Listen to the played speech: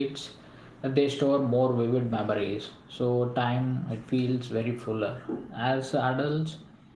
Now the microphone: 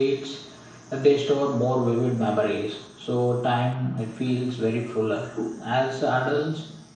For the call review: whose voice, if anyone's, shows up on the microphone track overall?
echo only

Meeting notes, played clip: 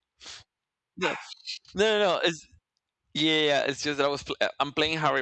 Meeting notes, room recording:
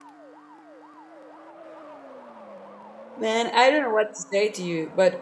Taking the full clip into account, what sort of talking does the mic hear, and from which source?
user only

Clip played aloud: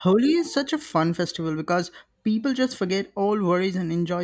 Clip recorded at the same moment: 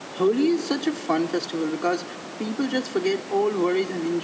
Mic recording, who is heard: echo only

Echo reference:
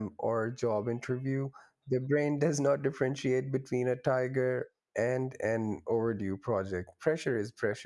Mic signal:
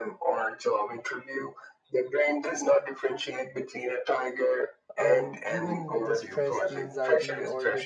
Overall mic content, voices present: both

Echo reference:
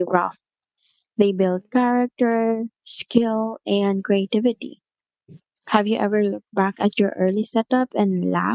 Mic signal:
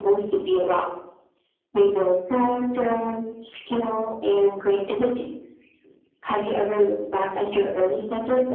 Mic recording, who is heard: echo only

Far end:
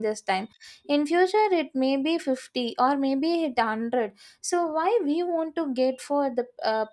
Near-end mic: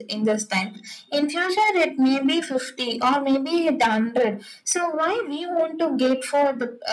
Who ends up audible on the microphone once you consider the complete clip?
echo only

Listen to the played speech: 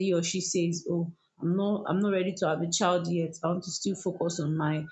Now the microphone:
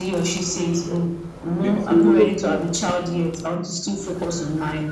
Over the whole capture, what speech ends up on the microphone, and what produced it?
both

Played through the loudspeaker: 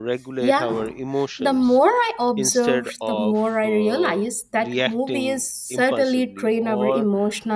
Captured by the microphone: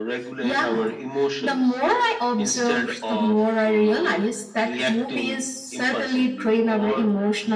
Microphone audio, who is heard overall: echo only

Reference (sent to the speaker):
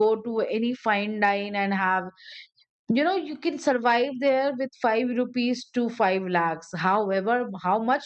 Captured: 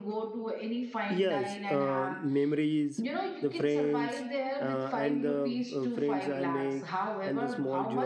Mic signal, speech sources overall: both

